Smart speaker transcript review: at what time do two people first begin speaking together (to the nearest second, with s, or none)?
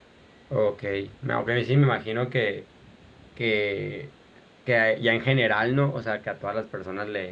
none